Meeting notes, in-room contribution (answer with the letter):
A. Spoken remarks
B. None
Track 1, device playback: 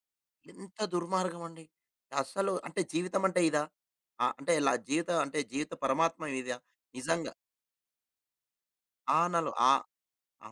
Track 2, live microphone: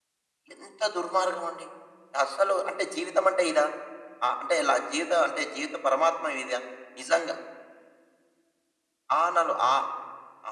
B